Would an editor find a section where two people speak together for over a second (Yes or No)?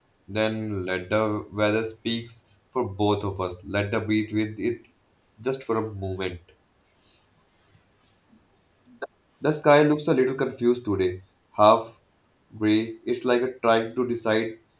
No